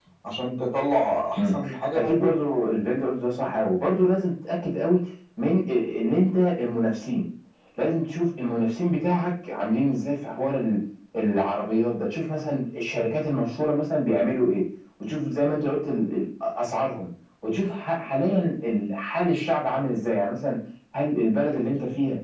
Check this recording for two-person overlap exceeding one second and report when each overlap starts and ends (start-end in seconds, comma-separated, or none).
none